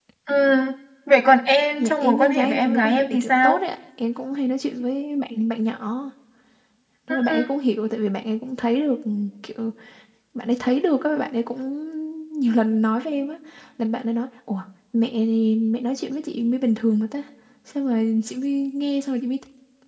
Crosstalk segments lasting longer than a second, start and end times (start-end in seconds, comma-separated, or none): 1.8-3.6